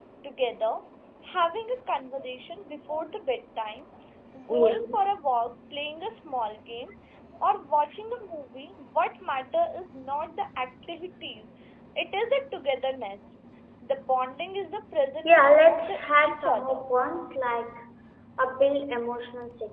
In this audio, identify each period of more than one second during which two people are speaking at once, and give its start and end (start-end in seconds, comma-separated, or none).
15.2-16.8